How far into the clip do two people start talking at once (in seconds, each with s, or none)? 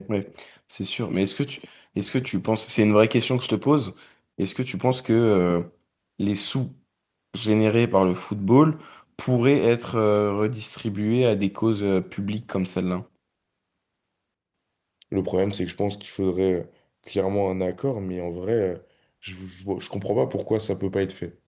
none